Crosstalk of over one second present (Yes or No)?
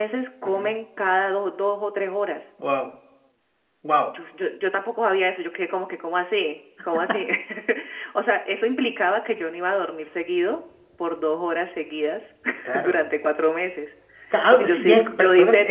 Yes